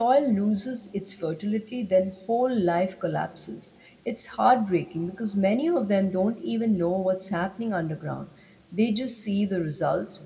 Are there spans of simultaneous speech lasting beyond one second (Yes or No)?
No